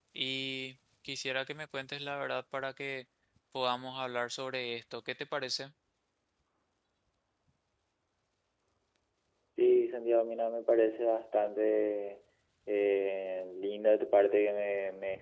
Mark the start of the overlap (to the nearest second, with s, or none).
none